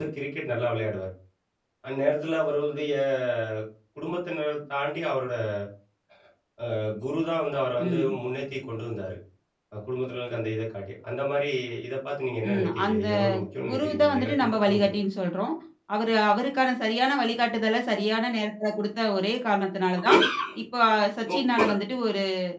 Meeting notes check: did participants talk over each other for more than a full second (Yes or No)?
Yes